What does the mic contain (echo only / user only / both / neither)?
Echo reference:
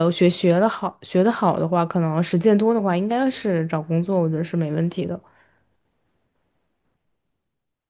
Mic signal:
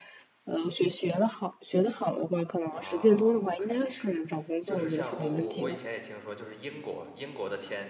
both